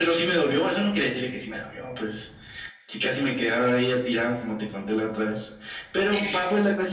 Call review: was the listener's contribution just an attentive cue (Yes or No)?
Yes